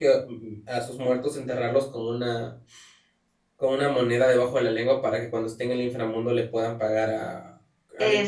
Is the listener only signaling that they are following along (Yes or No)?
No